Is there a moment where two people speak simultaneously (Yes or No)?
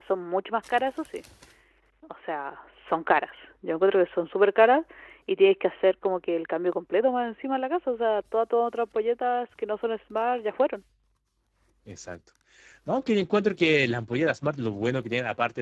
No